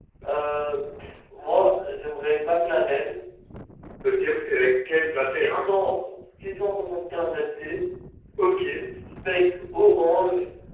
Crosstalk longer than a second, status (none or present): none